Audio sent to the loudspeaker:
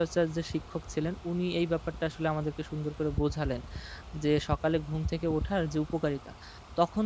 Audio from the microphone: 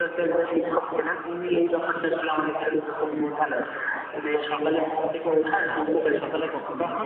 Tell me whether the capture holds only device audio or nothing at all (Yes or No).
No